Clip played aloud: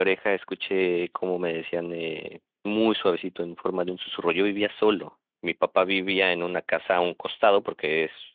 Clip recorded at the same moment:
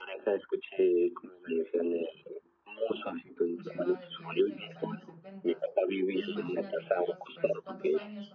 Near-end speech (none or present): present